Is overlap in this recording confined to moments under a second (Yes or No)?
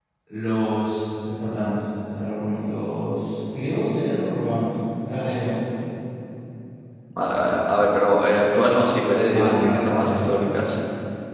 No